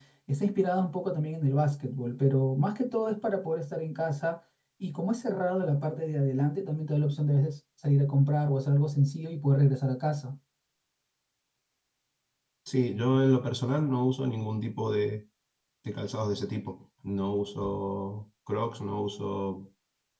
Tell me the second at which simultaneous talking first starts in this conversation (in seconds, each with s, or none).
none